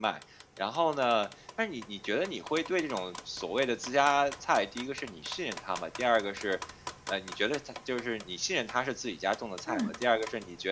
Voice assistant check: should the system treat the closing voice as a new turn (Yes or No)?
No